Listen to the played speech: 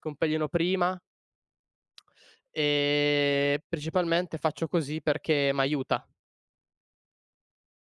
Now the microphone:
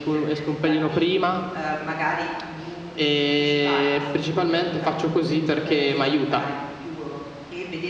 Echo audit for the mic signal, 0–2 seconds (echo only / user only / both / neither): both